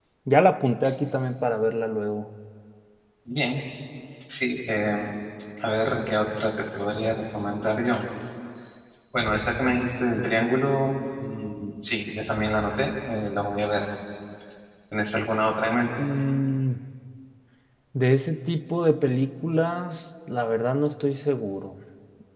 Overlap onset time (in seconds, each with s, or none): none